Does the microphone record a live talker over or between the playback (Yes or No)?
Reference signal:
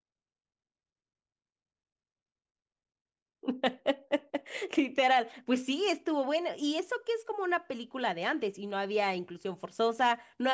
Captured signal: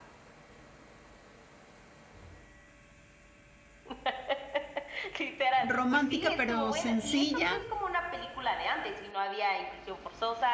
Yes